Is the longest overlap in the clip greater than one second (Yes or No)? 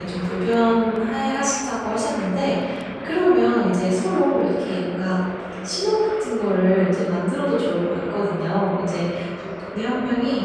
No